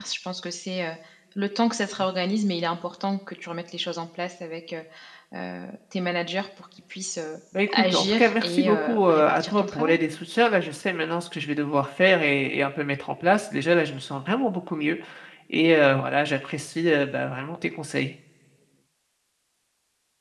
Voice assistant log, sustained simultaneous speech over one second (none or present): present